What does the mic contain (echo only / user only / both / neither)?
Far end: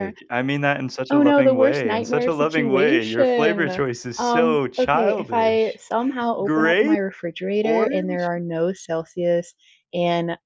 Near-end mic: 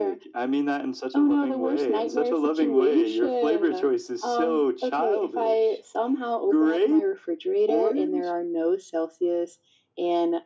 echo only